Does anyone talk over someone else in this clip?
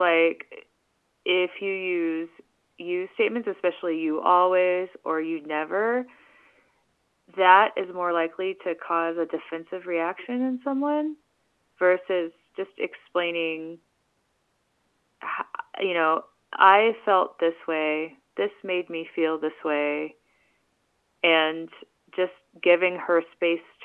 No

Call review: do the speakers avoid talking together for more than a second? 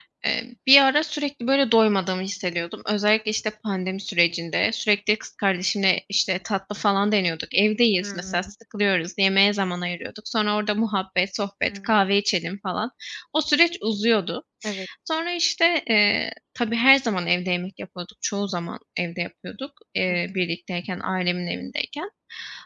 Yes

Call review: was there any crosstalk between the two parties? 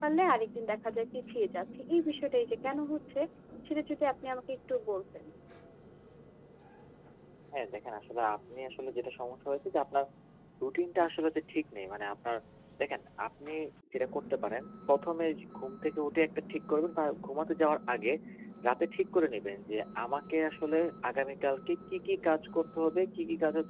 No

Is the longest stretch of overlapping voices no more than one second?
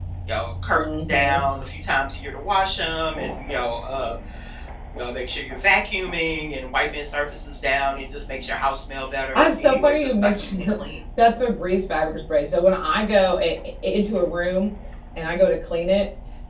No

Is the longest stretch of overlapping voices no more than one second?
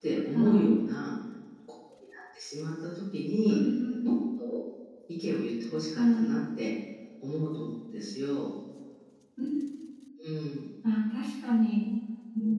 Yes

